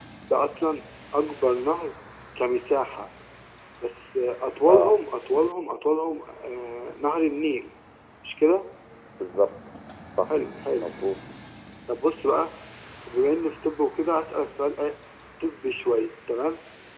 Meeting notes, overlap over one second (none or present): none